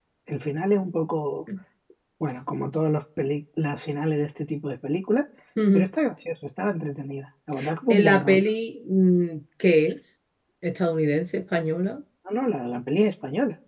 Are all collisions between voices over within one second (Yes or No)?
Yes